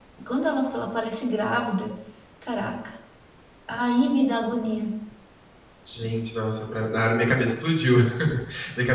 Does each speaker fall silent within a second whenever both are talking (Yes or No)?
Yes